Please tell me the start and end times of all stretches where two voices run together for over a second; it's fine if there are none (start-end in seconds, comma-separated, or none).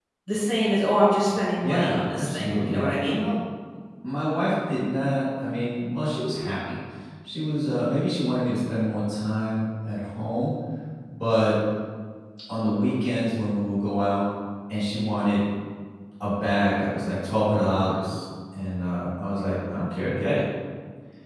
1.6-3.2